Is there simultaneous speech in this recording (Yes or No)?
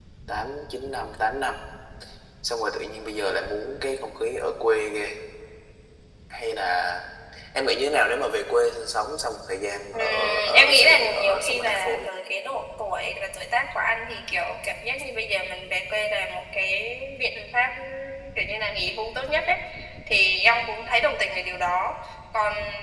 Yes